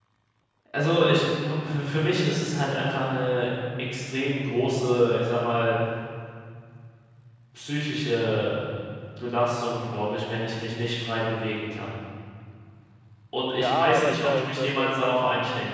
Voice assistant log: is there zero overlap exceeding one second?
No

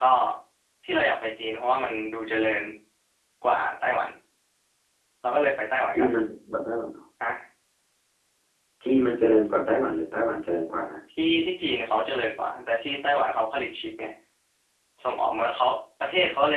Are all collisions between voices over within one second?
Yes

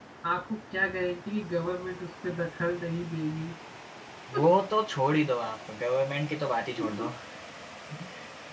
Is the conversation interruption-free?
Yes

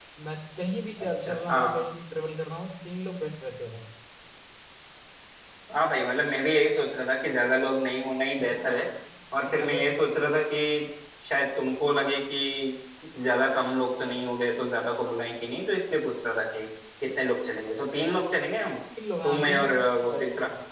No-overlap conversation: No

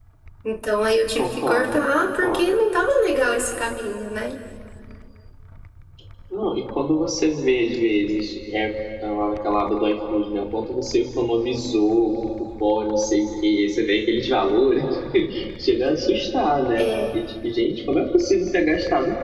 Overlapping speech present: Yes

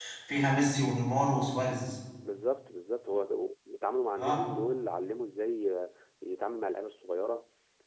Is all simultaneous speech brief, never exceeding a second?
Yes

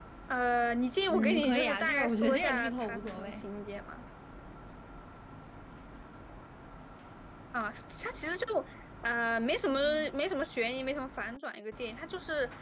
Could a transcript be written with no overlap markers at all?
No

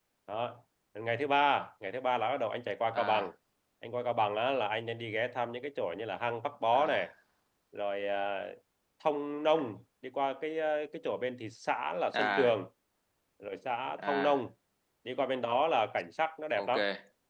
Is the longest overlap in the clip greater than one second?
No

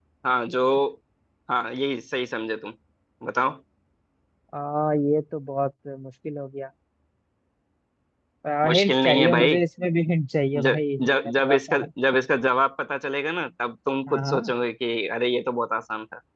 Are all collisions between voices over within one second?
No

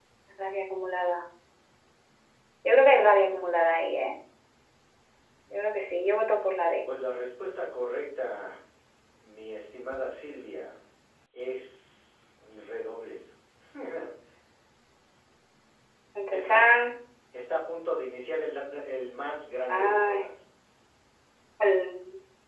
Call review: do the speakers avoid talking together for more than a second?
Yes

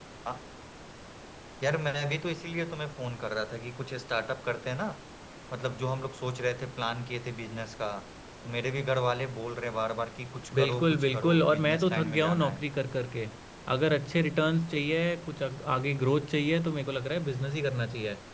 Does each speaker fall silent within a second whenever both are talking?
No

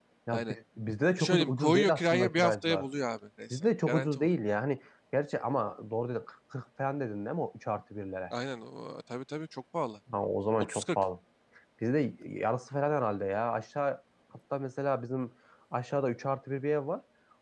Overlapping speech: Yes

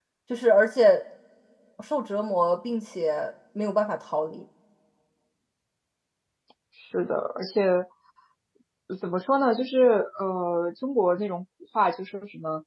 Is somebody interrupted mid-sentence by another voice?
No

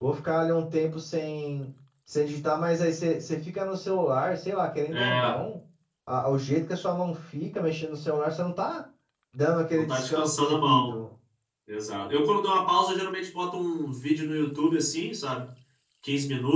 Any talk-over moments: Yes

